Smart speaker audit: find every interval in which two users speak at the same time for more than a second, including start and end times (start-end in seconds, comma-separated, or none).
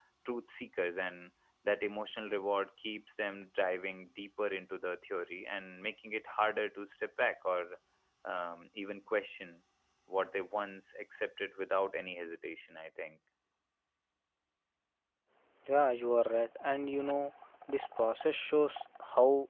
none